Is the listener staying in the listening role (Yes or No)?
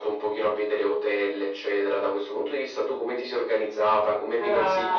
No